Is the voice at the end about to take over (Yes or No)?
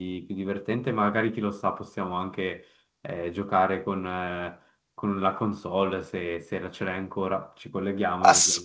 Yes